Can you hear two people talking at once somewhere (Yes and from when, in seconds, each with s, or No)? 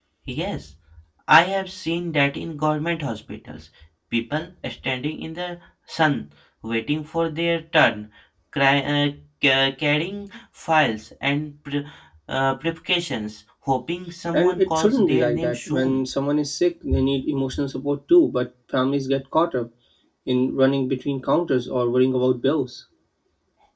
Yes, from 14.3 s